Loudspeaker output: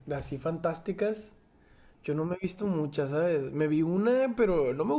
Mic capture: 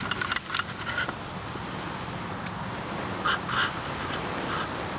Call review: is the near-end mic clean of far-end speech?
Yes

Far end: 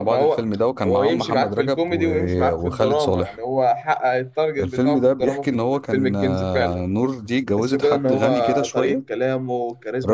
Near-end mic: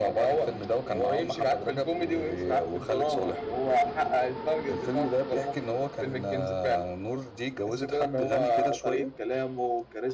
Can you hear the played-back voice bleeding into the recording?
Yes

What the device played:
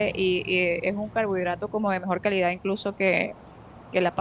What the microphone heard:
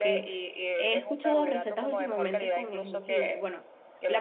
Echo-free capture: No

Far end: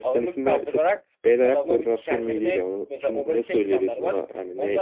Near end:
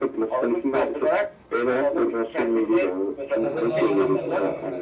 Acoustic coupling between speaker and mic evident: Yes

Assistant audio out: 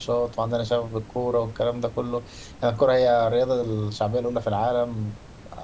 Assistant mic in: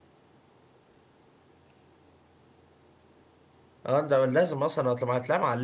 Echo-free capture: Yes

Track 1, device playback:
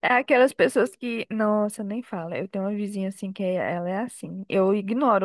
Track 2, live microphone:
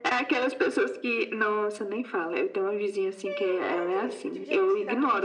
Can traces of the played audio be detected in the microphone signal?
Yes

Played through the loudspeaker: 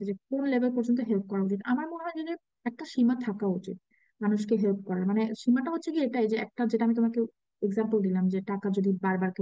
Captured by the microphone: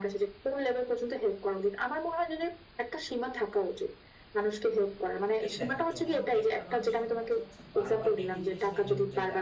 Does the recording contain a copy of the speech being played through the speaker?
Yes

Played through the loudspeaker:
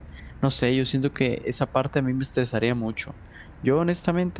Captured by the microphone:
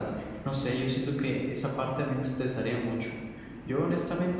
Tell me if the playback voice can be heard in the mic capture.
Yes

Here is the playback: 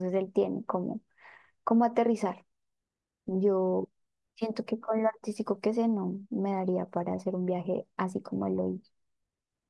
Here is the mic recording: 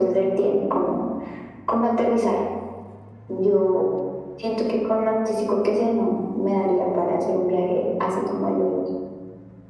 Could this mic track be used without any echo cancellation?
No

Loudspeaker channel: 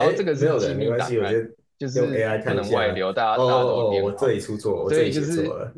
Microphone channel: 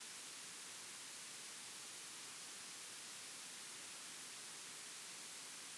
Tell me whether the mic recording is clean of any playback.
Yes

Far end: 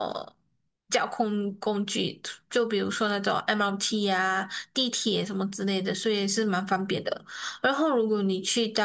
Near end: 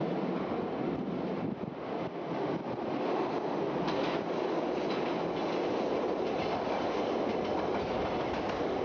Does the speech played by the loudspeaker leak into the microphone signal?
No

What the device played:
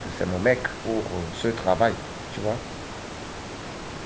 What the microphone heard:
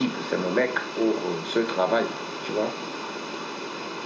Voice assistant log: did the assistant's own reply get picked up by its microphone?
Yes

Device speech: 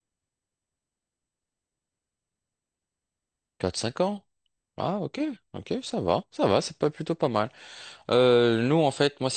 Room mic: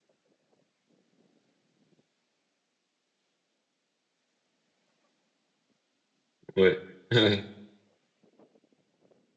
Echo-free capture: Yes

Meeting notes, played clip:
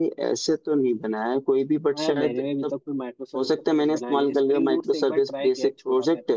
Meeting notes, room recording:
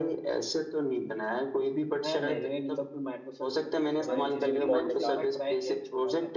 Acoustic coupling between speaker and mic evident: Yes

